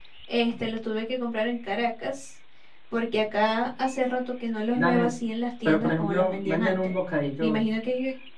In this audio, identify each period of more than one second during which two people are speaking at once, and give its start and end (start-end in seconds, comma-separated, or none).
5.6-6.9